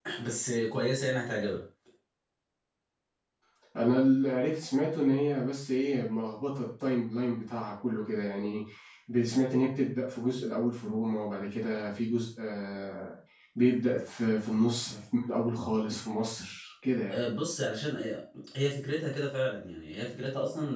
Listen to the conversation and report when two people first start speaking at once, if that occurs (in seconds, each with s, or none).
none